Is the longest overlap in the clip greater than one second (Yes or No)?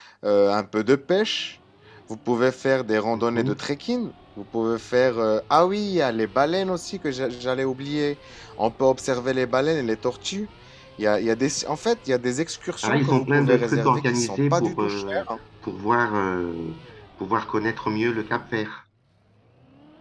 Yes